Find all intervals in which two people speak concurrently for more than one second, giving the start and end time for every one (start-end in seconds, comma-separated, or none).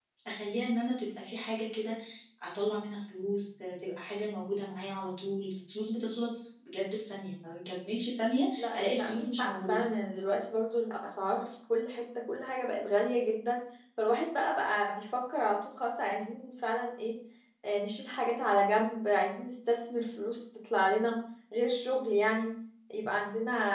8.6-9.8